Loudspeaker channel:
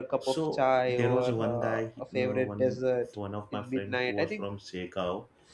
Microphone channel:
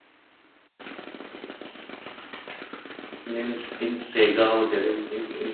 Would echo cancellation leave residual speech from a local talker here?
Yes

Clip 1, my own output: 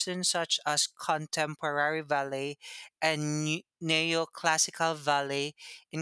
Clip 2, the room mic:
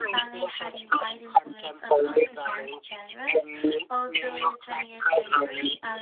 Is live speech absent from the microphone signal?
No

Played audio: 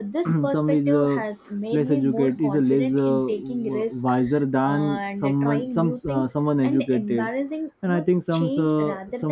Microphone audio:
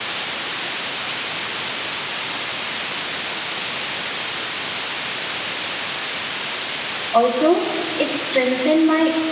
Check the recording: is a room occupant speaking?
Yes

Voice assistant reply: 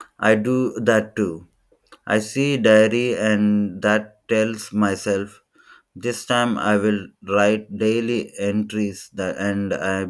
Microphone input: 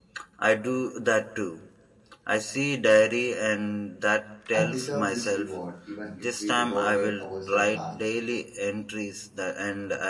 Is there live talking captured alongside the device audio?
Yes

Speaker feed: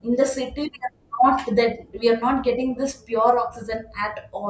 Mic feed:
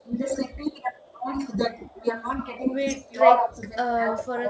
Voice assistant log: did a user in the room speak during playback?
Yes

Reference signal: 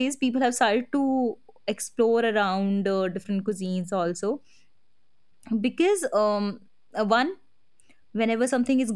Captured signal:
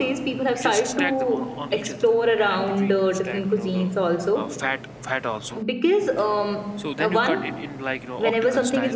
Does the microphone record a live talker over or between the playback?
Yes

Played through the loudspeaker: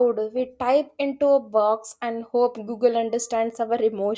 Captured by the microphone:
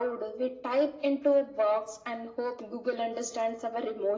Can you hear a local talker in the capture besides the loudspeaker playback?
No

